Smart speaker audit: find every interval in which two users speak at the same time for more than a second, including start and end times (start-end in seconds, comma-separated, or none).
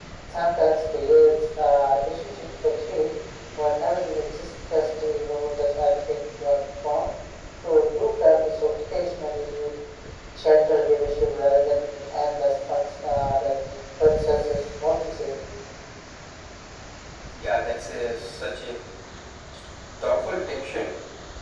none